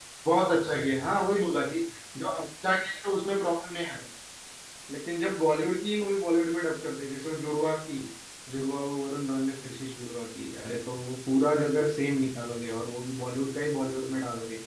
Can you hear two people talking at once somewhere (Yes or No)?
No